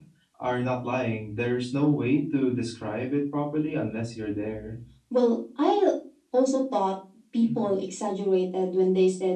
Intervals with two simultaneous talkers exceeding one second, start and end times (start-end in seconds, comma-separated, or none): none